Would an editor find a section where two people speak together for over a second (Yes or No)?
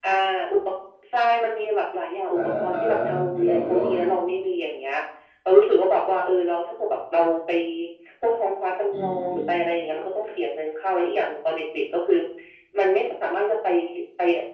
Yes